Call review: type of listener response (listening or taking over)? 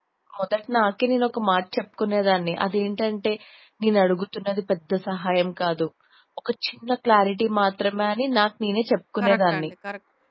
taking over